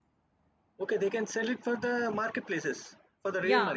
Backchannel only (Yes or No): No